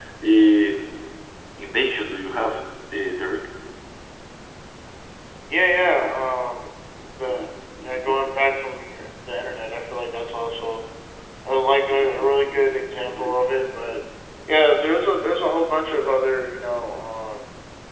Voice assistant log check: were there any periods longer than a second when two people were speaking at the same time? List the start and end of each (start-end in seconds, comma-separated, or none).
none